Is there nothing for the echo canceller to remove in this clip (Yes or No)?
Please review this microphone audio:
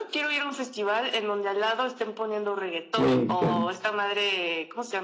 No